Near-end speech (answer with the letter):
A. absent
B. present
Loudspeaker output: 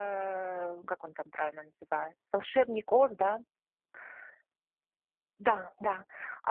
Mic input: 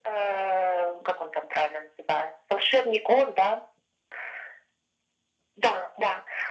A